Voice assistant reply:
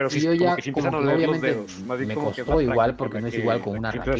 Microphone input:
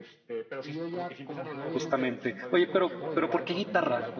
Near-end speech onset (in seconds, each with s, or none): 1.6 s